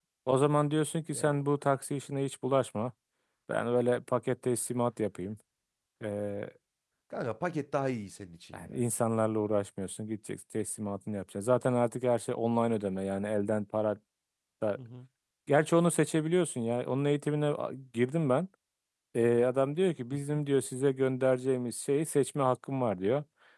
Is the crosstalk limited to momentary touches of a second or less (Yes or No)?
Yes